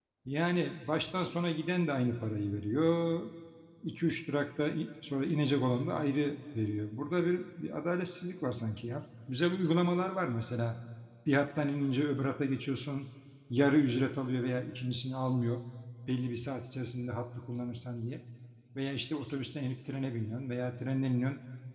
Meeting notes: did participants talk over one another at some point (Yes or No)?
No